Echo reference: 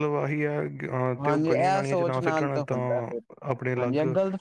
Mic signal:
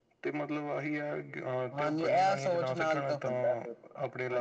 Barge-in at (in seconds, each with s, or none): none